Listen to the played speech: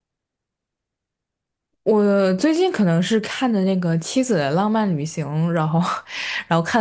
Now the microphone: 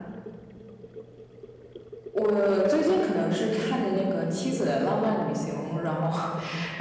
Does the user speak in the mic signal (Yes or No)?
No